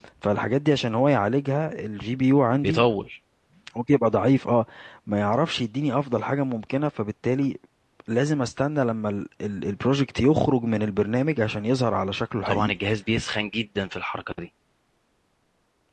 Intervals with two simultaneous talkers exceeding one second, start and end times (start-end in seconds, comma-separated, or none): none